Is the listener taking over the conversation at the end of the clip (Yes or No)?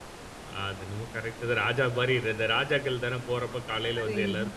Yes